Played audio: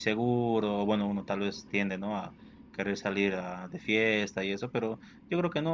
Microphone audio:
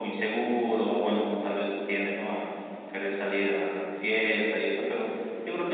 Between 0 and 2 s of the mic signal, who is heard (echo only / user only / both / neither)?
echo only